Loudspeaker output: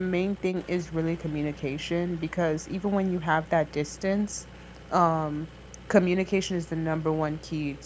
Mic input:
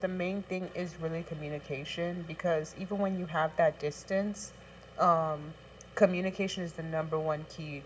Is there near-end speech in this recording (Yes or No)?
No